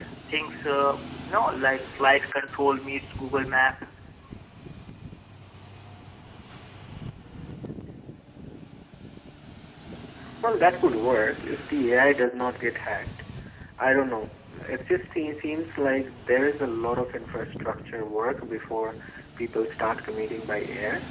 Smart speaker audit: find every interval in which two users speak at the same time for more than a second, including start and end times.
none

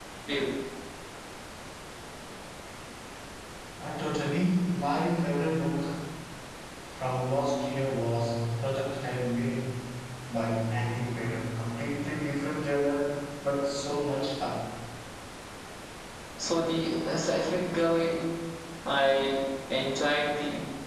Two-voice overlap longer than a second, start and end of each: none

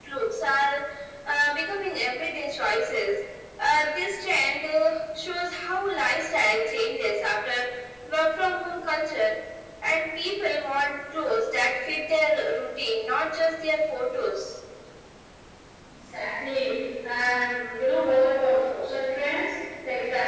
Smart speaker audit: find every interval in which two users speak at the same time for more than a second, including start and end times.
none

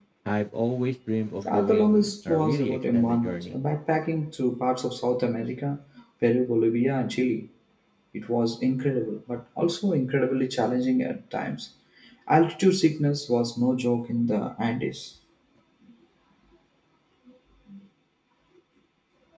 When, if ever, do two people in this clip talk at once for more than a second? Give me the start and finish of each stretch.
1.5-3.5

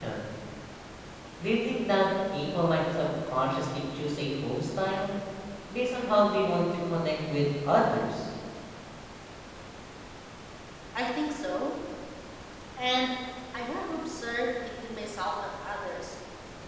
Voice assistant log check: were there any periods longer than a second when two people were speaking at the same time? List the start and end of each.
none

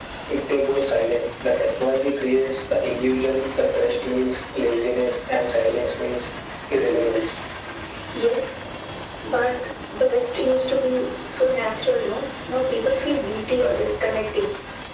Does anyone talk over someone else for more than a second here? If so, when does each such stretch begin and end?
none

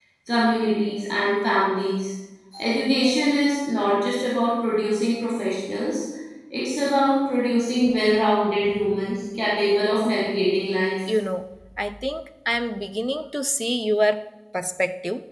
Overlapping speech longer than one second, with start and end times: none

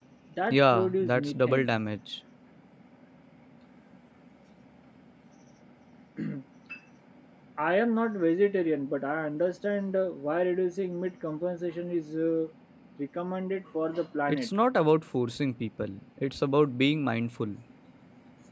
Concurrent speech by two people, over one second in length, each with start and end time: 0.5-1.7

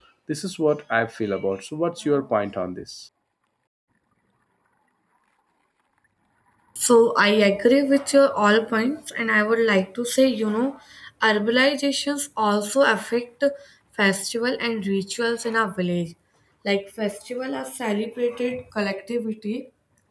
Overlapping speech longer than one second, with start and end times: none

